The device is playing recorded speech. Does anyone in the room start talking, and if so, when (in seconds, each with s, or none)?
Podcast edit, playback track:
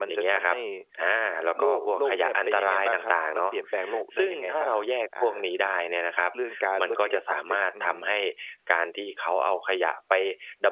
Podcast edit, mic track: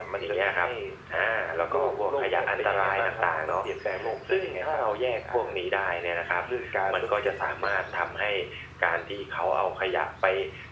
none